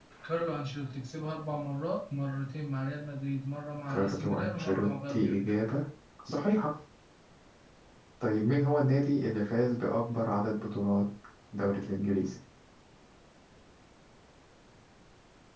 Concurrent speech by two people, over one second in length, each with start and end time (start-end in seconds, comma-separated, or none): 3.9-5.5